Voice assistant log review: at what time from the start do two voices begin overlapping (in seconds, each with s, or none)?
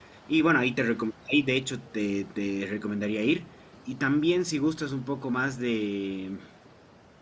none